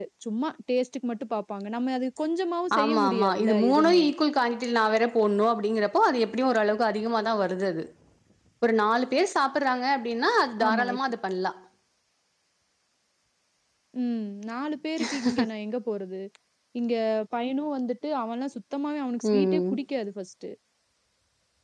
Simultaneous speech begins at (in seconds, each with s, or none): 2.8 s